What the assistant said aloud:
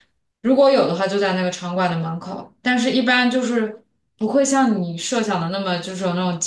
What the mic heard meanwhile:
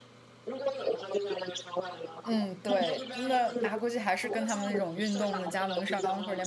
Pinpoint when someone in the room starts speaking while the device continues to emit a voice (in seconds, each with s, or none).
2.2 s